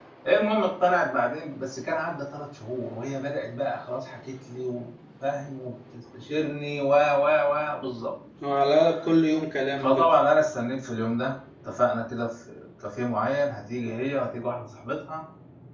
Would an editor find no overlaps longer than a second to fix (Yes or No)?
Yes